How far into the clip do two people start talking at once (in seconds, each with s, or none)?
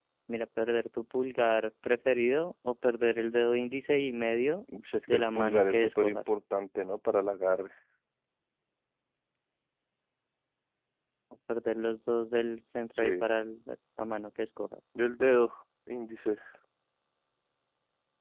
5.1 s